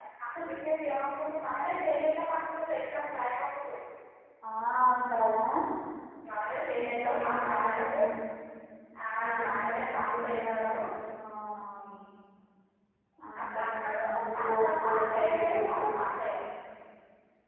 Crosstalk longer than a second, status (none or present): present